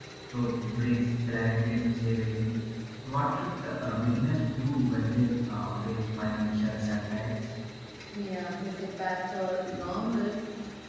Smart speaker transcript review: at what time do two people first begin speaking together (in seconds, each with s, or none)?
none